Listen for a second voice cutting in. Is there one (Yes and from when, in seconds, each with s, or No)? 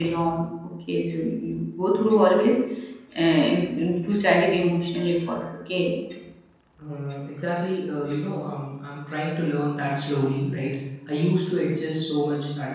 No